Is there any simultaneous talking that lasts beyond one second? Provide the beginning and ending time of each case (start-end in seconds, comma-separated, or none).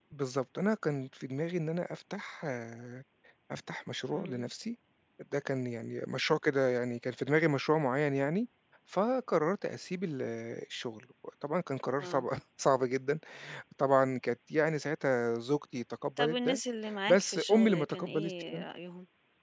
17.1-18.6